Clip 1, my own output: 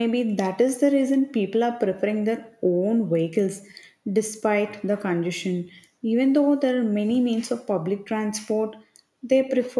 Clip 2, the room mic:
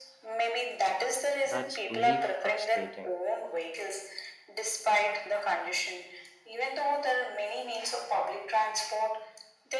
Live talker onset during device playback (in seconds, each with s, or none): 1.4 s